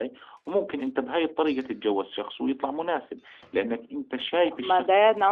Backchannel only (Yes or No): No